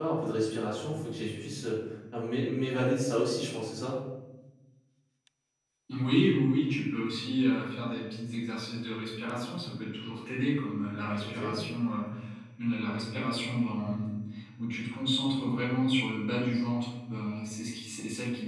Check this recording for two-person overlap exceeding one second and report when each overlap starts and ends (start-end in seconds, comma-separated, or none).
none